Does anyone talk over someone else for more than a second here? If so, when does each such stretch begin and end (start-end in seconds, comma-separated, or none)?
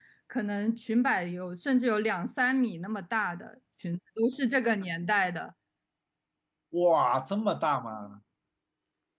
none